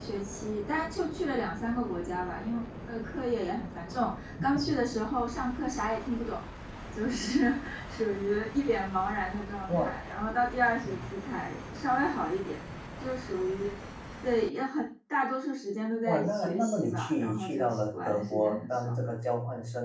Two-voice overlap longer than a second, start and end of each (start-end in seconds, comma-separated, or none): 16.1-18.9